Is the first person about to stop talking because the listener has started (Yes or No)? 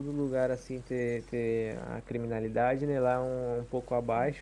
No